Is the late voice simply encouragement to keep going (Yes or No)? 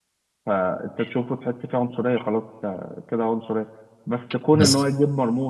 Yes